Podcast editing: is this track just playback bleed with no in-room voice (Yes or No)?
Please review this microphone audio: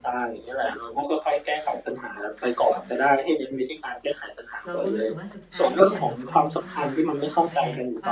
No